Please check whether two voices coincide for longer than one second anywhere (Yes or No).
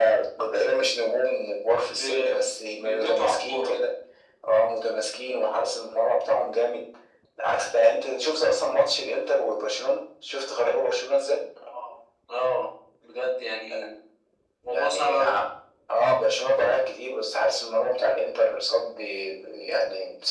Yes